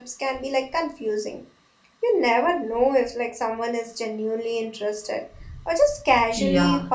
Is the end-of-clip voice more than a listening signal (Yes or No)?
Yes